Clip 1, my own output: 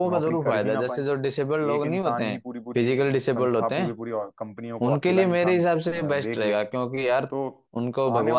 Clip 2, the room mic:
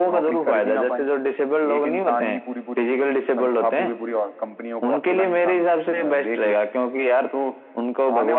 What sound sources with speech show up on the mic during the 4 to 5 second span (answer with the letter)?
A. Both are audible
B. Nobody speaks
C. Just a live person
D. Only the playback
D